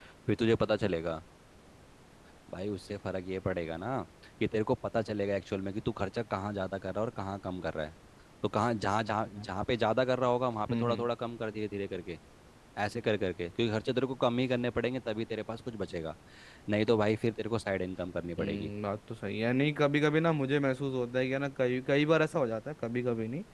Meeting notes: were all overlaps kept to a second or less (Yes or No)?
Yes